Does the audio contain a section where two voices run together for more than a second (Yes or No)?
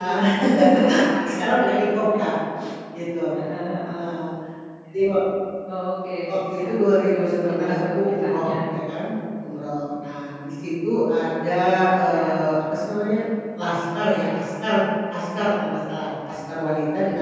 Yes